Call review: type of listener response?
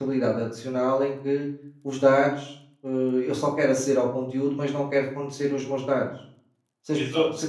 listening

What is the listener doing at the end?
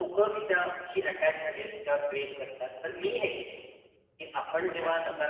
listening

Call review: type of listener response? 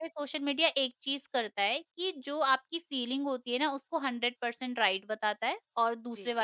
listening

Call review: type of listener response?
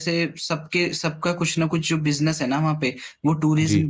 listening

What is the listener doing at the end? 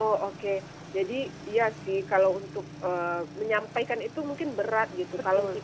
listening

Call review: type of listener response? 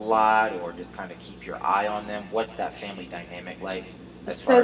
taking over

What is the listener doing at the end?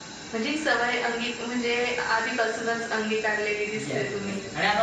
taking over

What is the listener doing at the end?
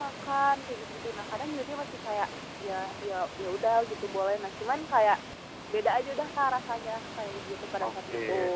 taking over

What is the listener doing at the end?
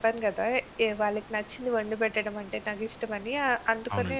listening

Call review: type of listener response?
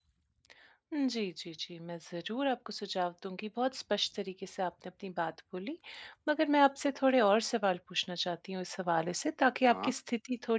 listening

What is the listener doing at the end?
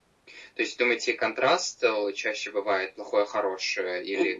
taking over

